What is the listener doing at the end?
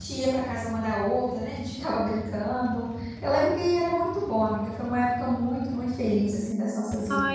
taking over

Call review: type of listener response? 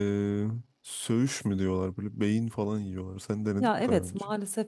taking over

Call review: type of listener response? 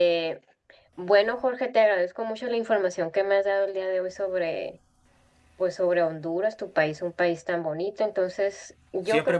taking over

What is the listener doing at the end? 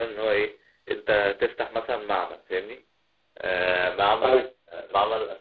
listening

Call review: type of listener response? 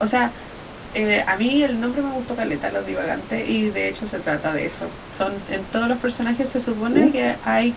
listening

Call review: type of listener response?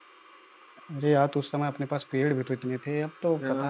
taking over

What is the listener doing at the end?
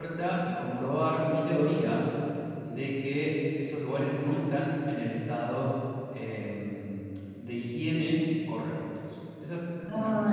taking over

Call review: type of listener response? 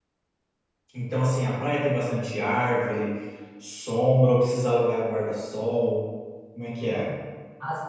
taking over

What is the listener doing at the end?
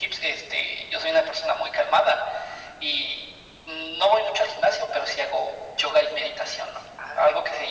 listening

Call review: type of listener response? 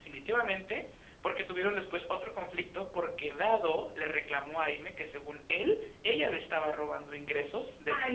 taking over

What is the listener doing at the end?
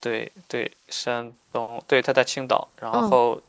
listening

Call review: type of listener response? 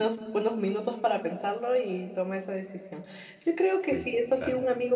listening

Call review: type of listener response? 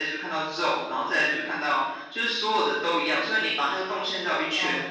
listening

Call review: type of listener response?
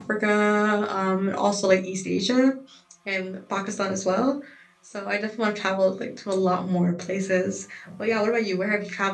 listening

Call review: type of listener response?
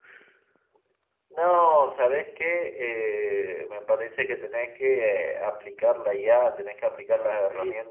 listening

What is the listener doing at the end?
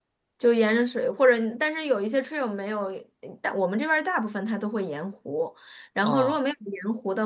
listening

